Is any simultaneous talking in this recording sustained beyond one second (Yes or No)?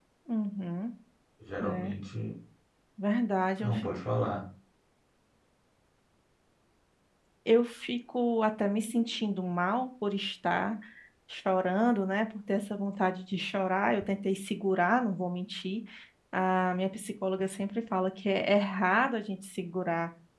No